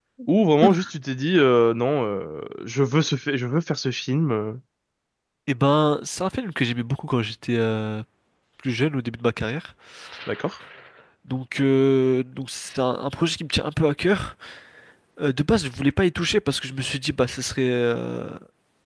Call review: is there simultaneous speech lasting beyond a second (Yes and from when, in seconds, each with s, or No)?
No